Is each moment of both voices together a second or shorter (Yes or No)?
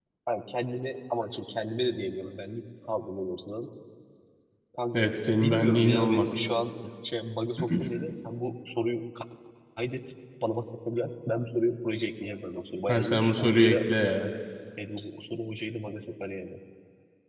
No